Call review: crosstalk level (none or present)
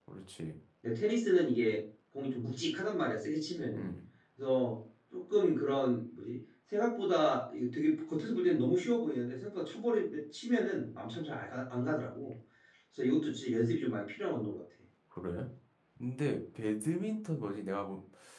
none